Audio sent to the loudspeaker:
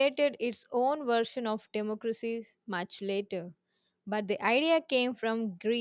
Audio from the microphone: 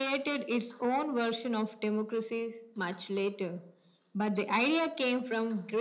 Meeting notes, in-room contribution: none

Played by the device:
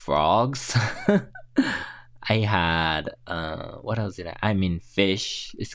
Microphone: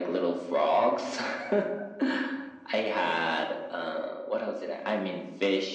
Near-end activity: none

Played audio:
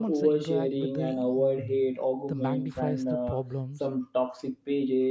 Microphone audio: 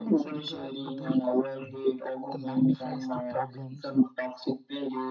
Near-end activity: none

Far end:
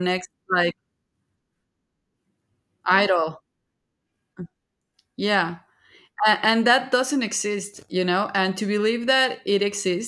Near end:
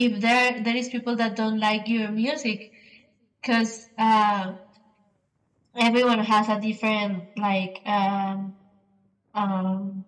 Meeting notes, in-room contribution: present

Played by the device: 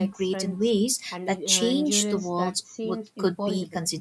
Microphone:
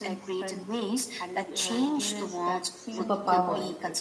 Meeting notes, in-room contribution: present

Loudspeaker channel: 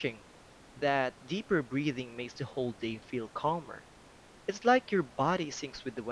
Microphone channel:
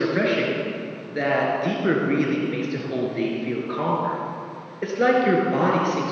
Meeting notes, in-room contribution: none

